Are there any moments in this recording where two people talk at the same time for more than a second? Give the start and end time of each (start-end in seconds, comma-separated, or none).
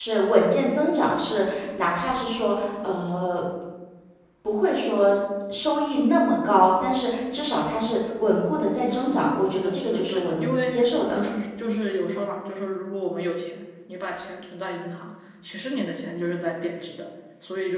8.8-10.7